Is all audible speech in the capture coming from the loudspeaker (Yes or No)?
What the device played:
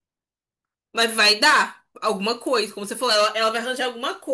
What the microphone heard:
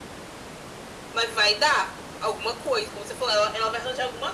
Yes